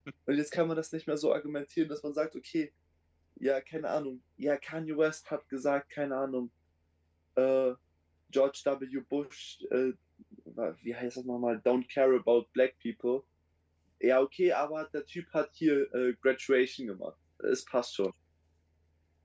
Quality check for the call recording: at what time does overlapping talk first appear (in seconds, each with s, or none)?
none